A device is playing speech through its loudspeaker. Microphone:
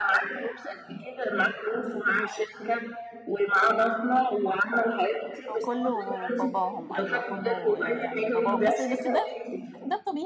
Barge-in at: 5 s

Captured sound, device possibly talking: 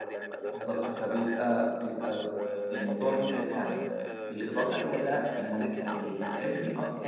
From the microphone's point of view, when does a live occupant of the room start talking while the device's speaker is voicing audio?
0 s

